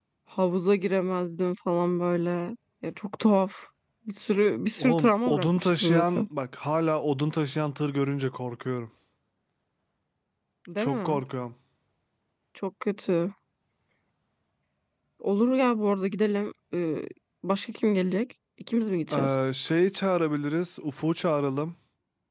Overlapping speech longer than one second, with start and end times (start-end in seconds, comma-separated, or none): 4.8-6.3